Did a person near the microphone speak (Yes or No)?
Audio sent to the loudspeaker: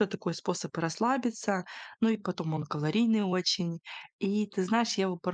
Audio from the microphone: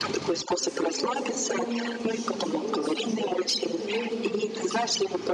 Yes